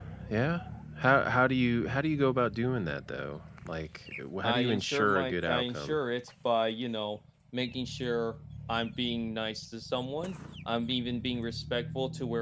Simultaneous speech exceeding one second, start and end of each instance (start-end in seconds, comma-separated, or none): 4.4-6.0